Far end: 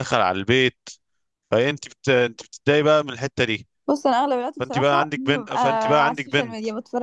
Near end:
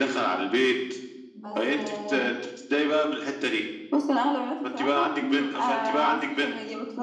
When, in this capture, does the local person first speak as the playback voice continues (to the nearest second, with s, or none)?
1 s